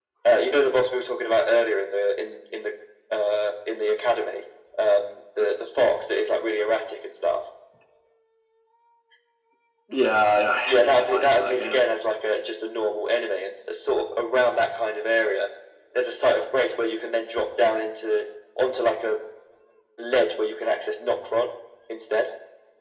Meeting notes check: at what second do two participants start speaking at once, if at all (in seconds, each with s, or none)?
10.7 s